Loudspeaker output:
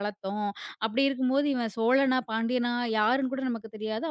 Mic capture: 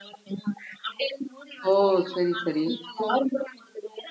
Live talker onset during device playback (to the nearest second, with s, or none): 2 s